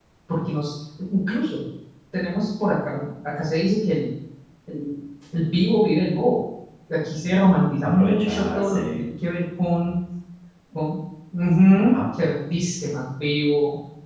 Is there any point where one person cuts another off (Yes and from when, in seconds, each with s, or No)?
Yes, from 7.8 s